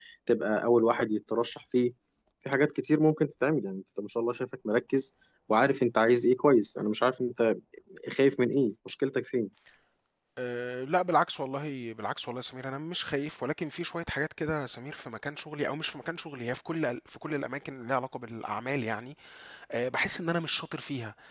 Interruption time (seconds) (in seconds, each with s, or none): none